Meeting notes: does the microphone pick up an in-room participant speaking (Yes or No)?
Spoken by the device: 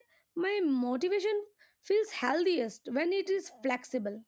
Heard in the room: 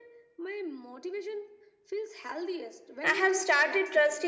Yes